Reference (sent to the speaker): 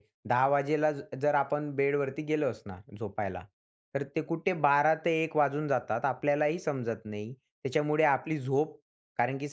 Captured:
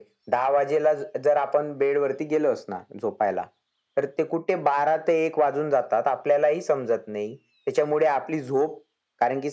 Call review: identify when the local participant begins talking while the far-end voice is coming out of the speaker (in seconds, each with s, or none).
none